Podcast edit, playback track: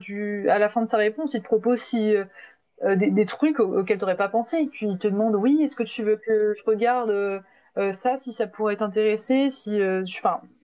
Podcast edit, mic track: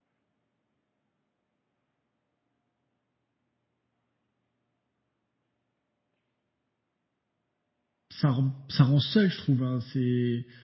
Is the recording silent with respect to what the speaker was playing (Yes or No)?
Yes